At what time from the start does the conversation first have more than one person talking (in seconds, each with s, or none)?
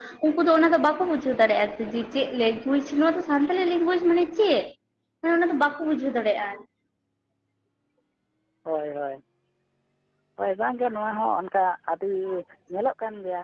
none